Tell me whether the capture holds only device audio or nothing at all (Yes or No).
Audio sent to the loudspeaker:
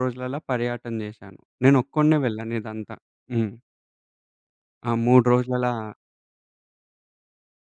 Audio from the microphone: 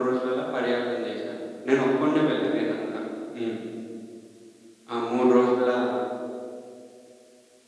Yes